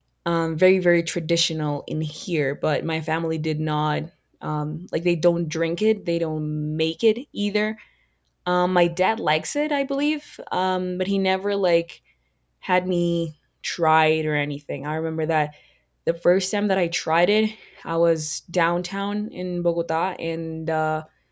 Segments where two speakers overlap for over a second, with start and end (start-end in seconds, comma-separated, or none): none